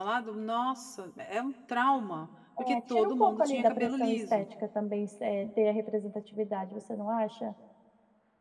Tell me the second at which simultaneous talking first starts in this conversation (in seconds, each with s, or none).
2.6 s